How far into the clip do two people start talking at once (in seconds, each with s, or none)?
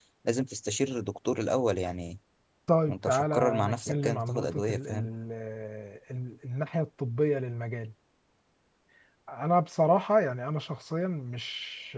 2.9 s